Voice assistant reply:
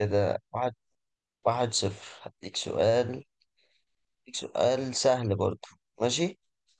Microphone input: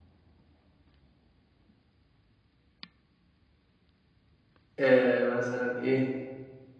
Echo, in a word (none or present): none